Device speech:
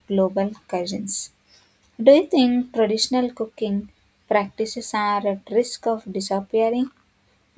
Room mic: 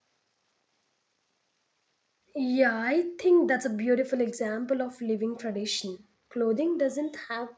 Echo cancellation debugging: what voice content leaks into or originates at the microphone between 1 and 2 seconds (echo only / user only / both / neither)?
neither